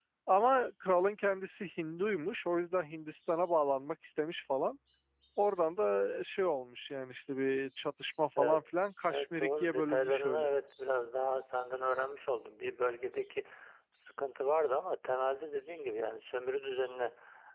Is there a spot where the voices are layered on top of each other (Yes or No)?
Yes